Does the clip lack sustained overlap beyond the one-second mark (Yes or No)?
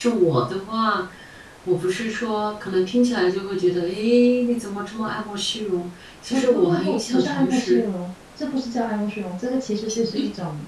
No